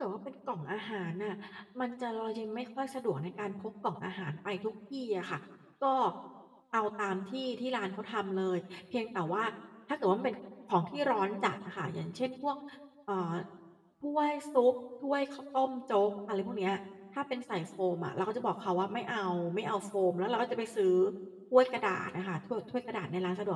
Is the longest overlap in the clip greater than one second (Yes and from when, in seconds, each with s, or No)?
No